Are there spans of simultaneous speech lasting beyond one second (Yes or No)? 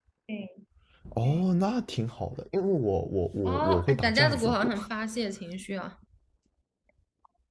Yes